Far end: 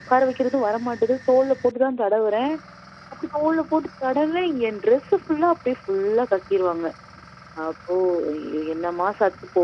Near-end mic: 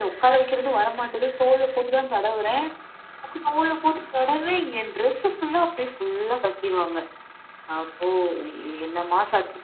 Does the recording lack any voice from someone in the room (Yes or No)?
Yes